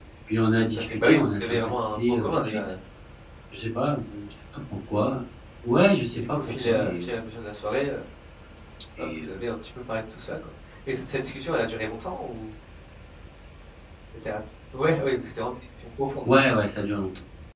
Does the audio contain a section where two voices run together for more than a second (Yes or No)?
Yes